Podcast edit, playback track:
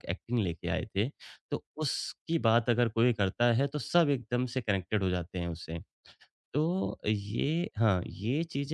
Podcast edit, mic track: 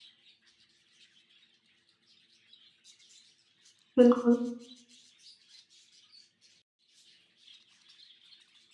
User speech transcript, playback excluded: बिल्कुल।

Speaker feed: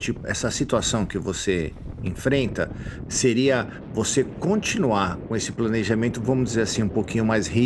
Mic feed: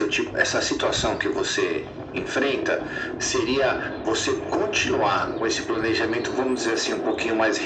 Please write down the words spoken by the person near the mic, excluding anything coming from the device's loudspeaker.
none

